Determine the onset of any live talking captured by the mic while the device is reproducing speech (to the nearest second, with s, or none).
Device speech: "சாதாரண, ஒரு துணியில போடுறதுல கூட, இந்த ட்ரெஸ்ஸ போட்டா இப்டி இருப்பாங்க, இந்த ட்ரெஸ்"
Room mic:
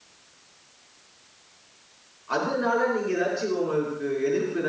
2 s